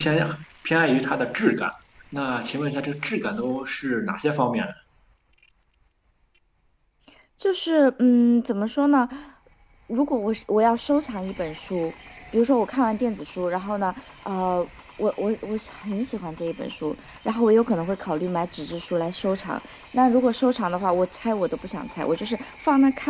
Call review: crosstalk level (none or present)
none